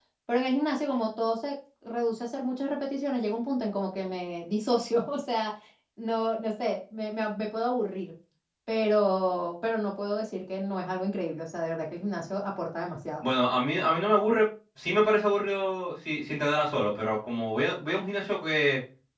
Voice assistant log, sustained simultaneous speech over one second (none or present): none